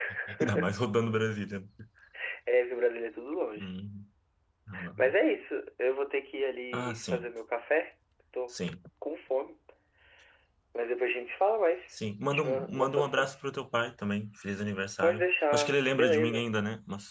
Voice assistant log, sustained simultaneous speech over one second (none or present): present